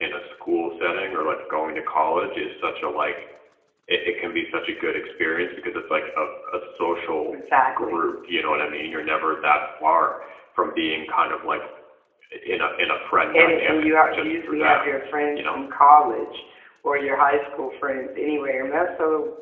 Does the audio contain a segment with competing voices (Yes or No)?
Yes